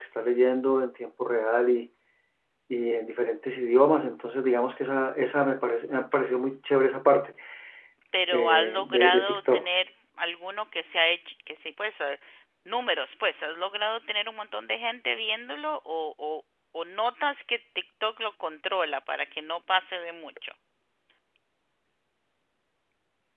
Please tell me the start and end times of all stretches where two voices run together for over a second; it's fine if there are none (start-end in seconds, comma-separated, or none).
8.3-9.6